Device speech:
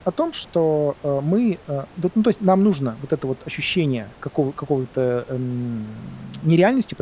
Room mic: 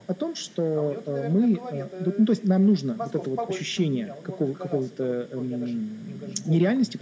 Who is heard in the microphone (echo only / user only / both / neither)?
both